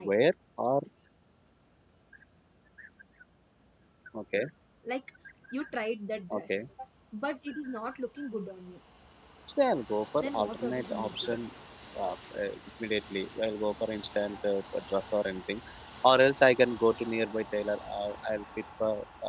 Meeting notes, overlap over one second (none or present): present